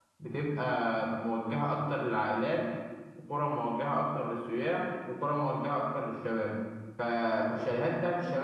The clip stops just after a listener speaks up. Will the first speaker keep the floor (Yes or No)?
Yes